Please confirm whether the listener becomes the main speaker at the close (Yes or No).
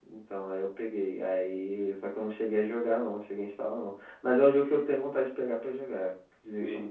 Yes